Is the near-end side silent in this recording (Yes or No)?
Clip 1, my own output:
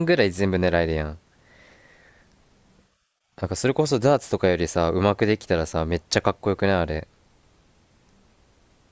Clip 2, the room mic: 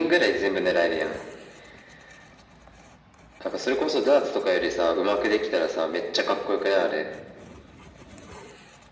Yes